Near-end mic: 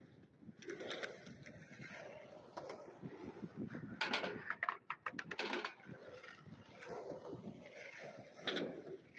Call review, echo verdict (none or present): none